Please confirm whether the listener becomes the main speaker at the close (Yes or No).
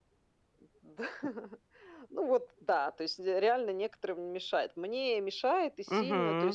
No